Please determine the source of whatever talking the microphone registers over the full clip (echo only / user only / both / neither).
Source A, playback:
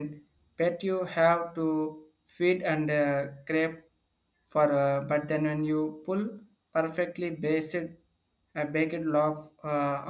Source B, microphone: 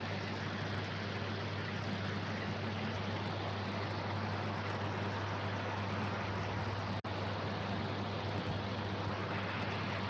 neither